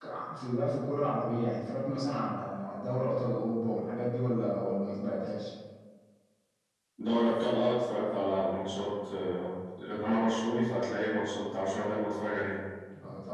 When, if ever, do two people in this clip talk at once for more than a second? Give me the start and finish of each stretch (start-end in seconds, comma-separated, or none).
none